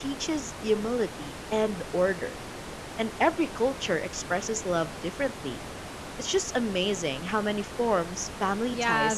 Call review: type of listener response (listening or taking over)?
taking over